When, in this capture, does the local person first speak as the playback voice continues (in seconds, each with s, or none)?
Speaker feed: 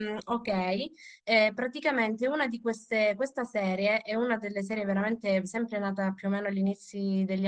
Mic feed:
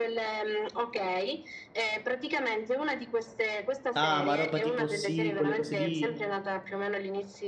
3.9 s